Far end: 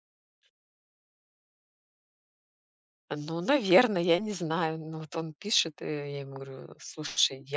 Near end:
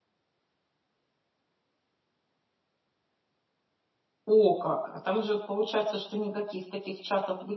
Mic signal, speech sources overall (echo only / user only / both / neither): user only